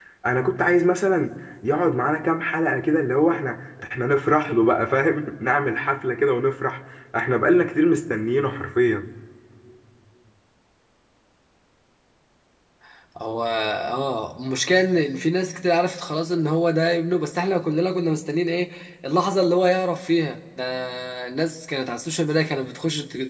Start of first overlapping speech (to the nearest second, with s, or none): none